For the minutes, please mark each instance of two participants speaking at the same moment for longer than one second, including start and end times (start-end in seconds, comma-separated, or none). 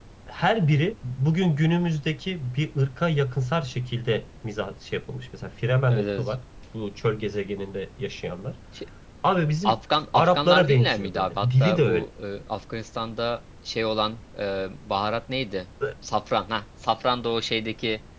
10.2-12.0